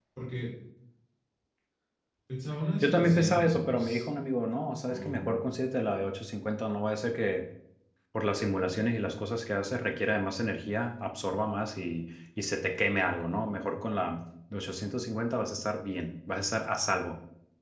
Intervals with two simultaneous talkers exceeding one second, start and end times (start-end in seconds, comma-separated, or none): 2.8-4.0